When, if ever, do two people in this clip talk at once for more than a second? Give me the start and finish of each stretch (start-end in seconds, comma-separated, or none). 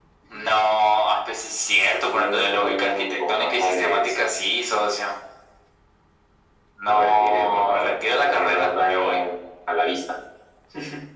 2.0-4.1, 6.9-9.2